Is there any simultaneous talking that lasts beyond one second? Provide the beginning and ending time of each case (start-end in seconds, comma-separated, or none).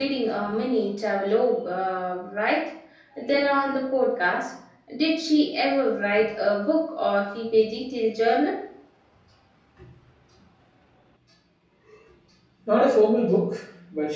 none